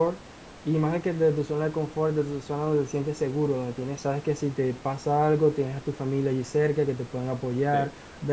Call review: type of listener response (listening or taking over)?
listening